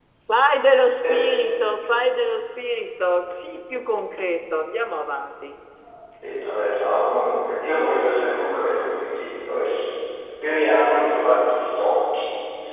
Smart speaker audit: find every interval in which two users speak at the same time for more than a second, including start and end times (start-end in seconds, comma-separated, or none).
none